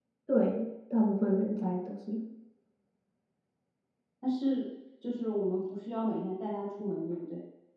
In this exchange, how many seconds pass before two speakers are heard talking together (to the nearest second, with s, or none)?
none